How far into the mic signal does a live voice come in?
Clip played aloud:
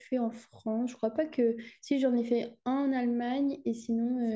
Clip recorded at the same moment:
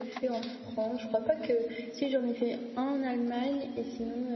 none

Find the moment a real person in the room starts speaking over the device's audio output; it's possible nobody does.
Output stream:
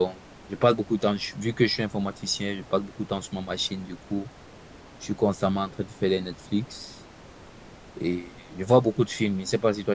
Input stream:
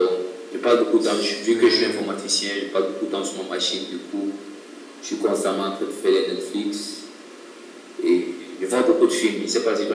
1.0 s

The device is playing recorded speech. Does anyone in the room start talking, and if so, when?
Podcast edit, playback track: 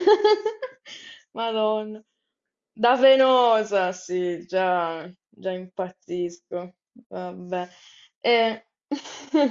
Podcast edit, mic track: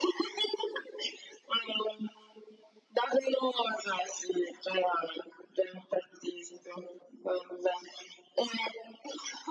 none

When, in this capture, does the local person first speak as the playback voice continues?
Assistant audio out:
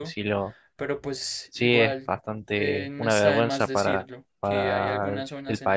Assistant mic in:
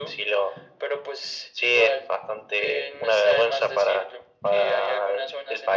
none

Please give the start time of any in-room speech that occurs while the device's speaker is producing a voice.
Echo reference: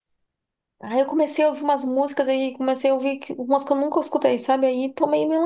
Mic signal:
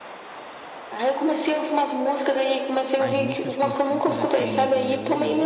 2.9 s

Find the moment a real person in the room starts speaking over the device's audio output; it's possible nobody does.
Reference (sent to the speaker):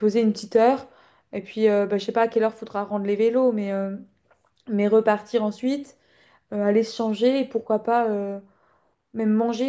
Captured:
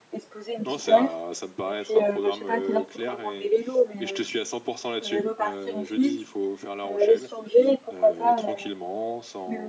0.7 s

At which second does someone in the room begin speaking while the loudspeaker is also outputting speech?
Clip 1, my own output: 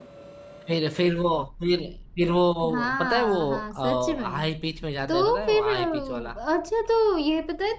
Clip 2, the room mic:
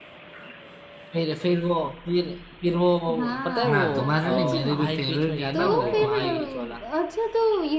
3.7 s

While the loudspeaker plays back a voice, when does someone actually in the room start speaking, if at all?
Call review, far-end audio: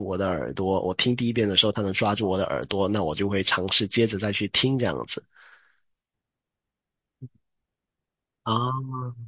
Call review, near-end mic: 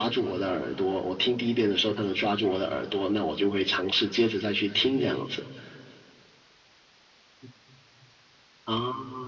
4.9 s

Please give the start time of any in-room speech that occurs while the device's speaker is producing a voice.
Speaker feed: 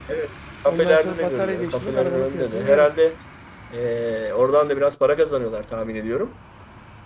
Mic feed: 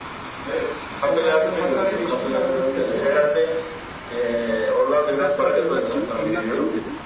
5.1 s

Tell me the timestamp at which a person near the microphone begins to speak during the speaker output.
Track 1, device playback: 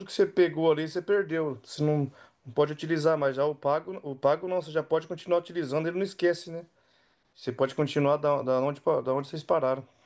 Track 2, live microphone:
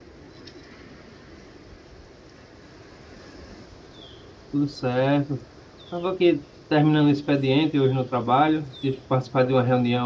4.5 s

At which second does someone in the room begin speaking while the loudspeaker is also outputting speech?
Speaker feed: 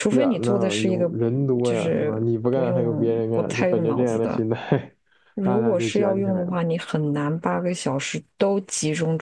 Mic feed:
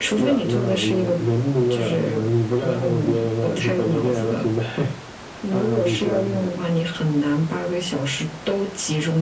none

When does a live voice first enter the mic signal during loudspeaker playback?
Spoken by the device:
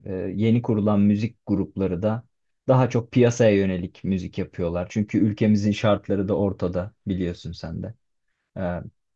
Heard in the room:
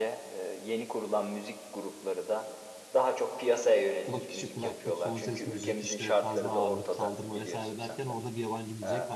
4.0 s

